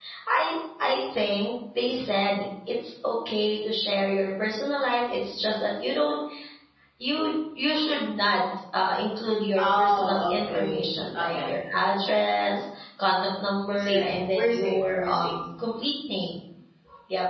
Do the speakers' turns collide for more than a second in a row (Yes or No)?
Yes